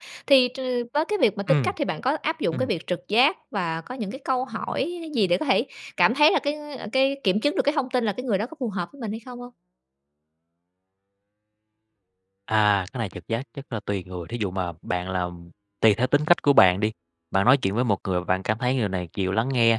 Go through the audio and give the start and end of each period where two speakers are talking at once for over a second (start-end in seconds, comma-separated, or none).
none